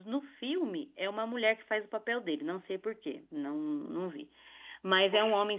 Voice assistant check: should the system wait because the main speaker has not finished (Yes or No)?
Yes